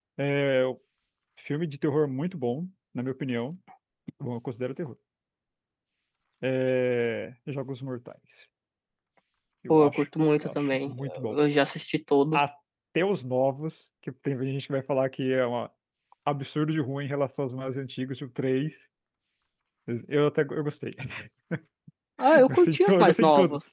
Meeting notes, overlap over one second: present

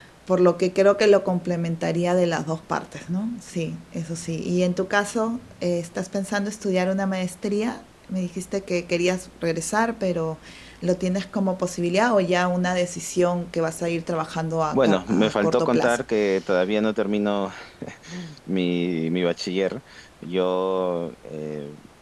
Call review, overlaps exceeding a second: present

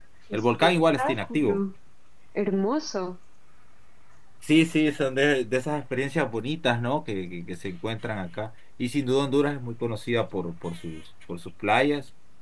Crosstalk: present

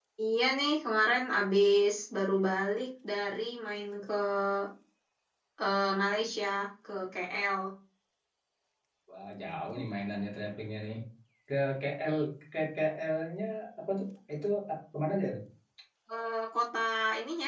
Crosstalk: none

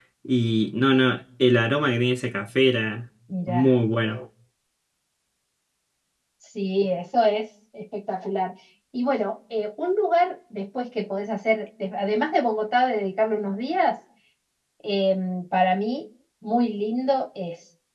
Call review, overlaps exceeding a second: none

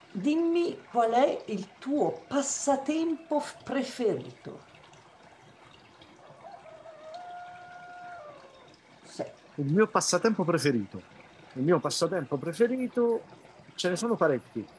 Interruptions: none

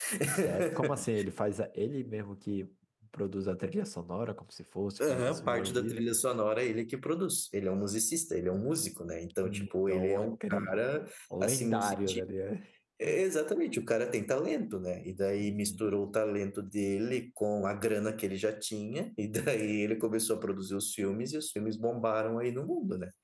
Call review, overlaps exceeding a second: present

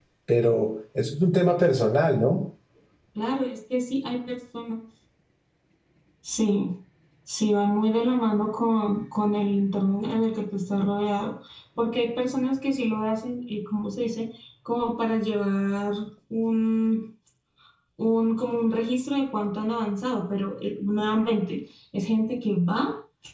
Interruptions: none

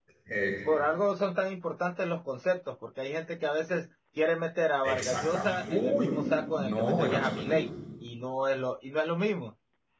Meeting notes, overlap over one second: present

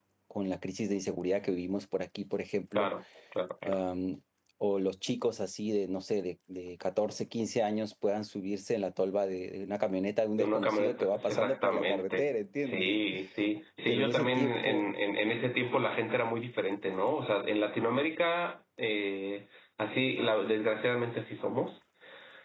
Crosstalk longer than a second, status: present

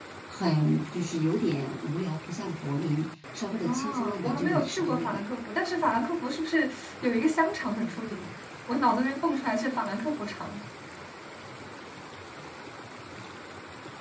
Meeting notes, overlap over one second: present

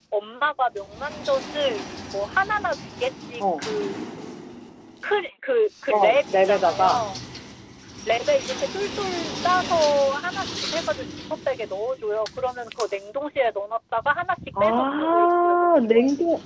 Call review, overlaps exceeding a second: present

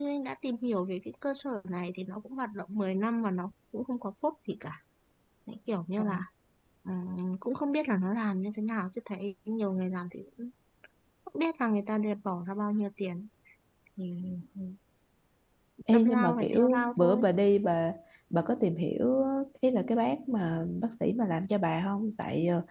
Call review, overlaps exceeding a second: present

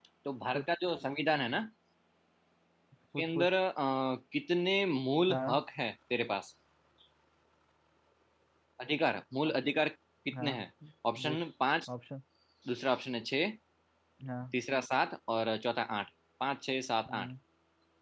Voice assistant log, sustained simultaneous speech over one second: none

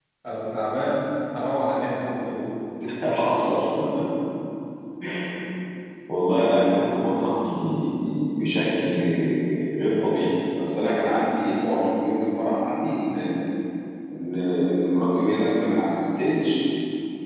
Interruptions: none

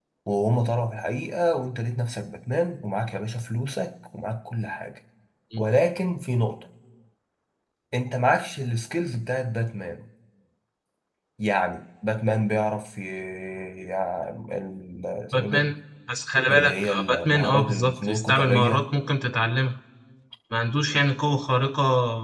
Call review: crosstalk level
present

